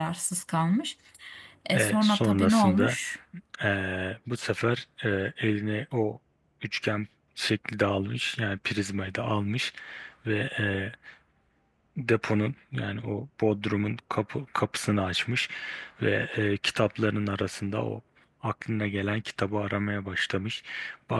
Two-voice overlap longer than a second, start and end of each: 1.7-3.0

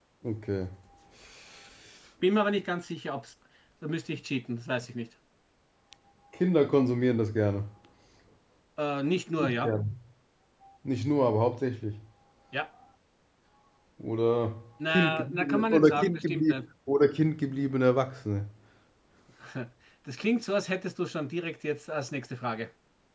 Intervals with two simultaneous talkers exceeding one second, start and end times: 14.9-16.6

